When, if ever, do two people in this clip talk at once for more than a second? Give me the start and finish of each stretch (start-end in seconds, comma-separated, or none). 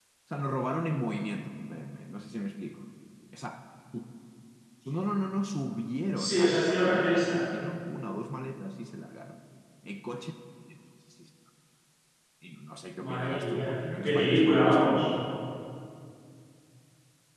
6.2-7.4, 13.0-15.0